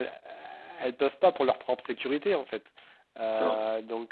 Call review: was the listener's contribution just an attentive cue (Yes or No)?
Yes